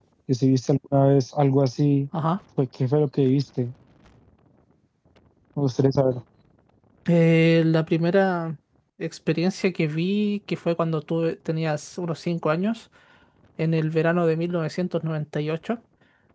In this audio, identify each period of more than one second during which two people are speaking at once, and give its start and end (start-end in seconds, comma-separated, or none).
none